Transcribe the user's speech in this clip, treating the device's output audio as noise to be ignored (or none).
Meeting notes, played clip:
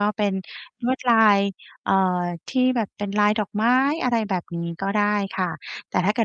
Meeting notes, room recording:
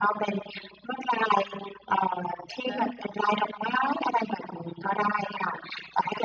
อะฮะ